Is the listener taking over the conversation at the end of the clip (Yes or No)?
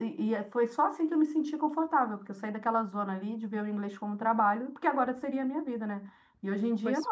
No